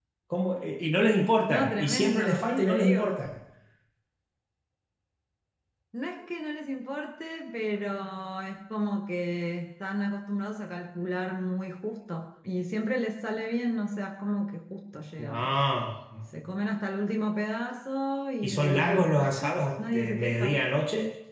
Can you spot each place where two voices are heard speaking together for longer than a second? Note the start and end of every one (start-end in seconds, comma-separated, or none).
1.5-3.1, 18.4-20.6